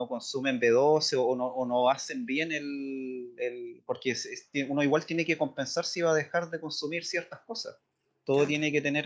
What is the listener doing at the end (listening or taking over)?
listening